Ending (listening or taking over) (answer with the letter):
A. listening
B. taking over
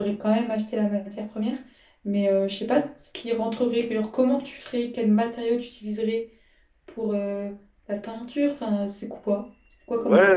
B